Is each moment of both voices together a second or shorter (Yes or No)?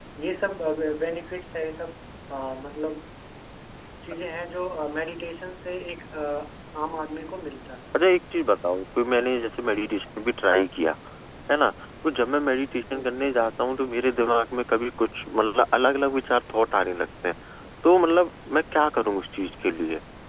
Yes